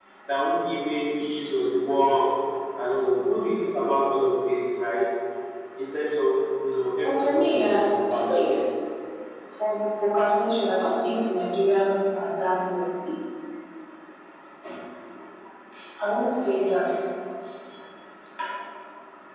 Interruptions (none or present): present